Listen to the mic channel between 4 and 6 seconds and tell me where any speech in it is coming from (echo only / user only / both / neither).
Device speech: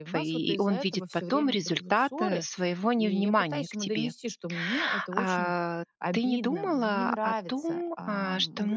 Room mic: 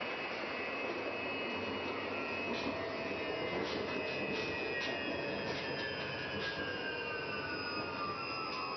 neither